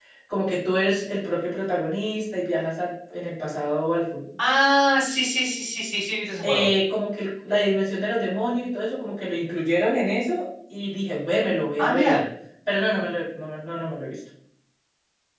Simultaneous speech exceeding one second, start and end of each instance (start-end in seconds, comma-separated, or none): none